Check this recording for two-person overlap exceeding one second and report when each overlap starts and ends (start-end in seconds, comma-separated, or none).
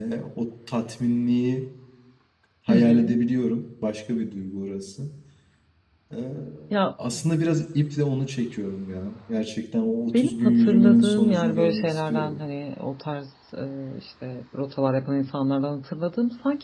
10.1-12.4